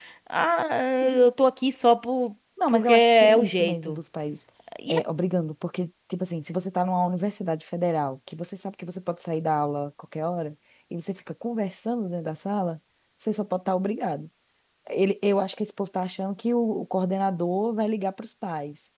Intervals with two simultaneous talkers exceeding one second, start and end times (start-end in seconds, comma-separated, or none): 2.7-4.0